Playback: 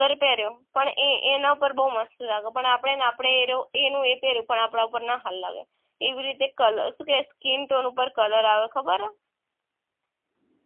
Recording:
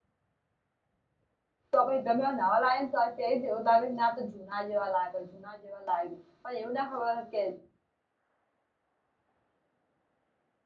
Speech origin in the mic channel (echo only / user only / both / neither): user only